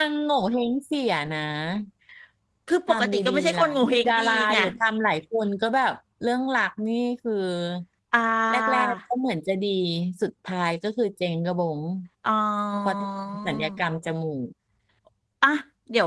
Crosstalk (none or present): present